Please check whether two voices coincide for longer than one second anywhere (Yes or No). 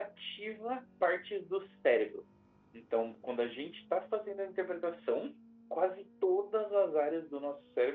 No